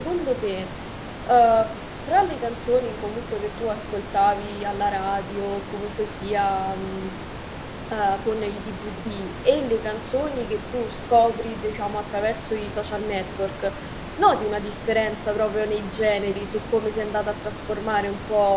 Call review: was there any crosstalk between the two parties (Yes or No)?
No